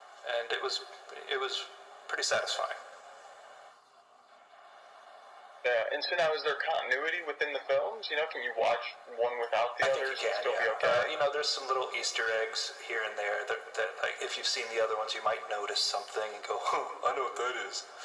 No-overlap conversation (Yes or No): No